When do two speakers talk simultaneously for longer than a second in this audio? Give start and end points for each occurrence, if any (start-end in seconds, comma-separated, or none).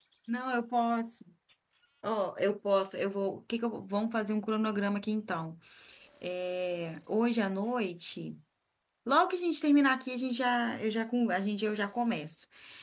none